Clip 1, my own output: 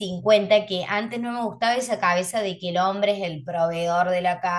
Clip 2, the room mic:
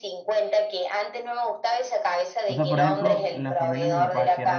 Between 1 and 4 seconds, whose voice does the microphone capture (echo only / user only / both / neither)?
both